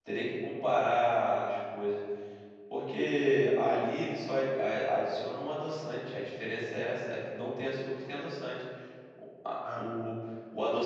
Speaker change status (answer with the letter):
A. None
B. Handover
A